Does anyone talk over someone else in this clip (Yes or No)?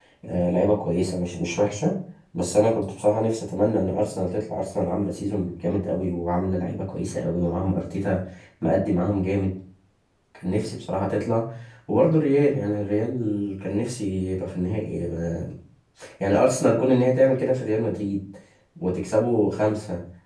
No